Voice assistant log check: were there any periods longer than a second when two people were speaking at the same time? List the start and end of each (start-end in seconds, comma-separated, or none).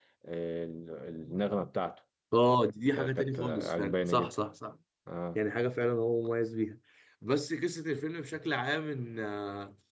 2.9-4.4